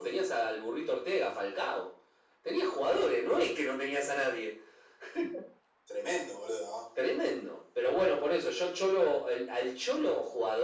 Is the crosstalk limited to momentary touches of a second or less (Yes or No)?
Yes